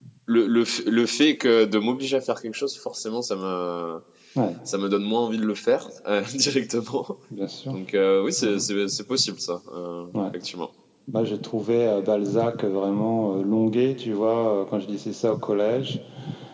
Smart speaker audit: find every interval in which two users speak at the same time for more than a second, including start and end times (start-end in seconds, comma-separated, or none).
none